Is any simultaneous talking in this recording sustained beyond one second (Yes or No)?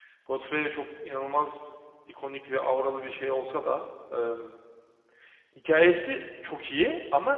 No